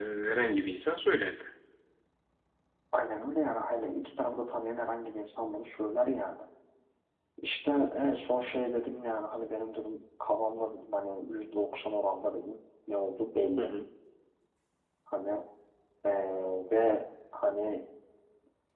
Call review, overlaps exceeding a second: none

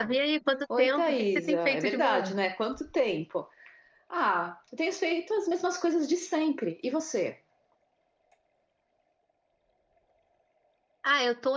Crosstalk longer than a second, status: present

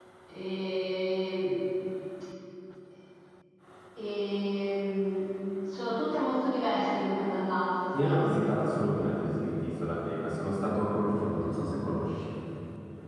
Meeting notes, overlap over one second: none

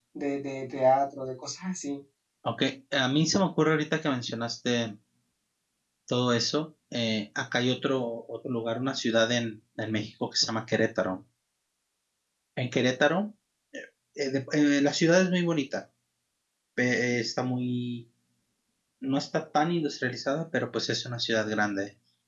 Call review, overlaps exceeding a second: none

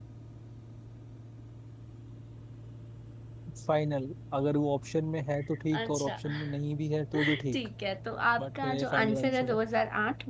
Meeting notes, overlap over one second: present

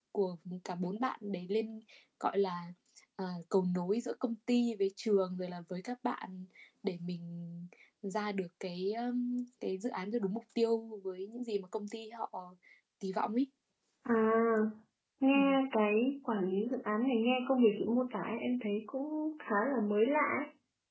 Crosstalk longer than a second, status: none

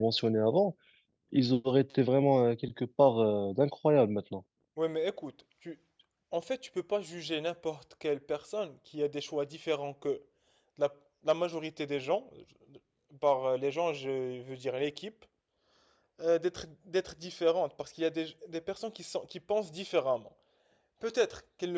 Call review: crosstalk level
none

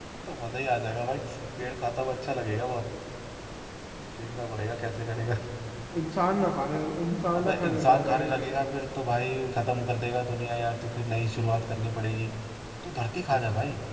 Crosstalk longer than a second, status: present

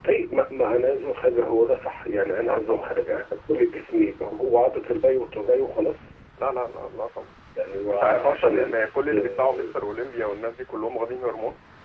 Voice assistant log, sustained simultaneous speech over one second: present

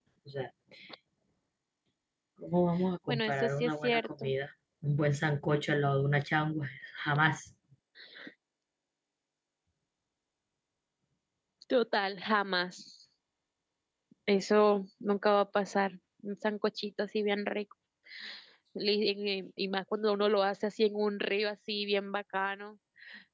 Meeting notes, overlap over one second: present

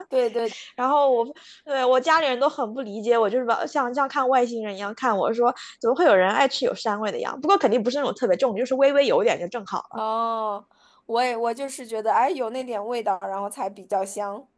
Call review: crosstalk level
none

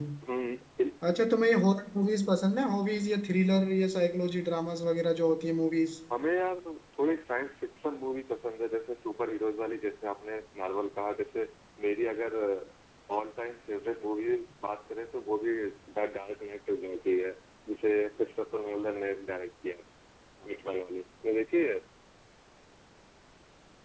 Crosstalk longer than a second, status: none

